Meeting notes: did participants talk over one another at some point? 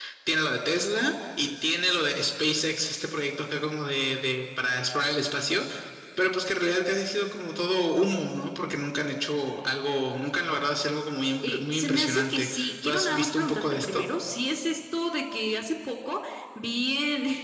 Yes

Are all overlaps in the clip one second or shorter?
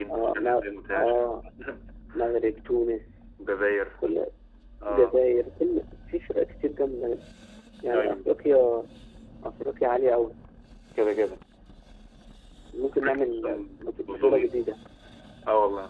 No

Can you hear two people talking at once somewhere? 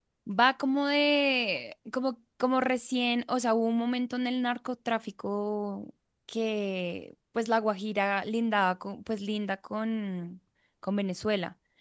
No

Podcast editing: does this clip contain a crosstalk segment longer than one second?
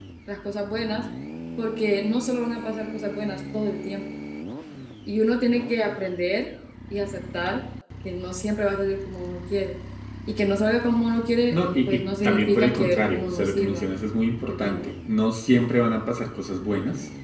Yes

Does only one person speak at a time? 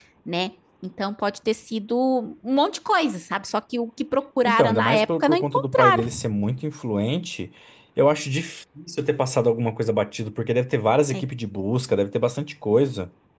No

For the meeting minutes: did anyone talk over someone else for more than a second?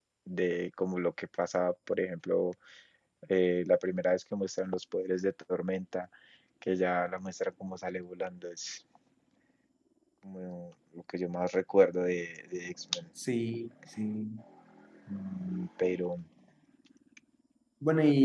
No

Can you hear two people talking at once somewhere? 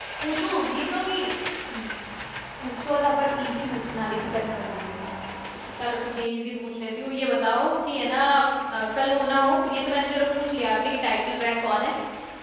No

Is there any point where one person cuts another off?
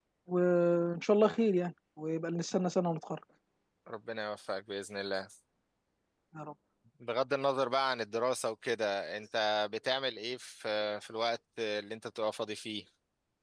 No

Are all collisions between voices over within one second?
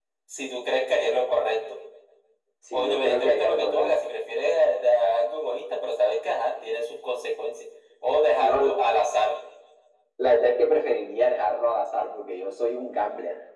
No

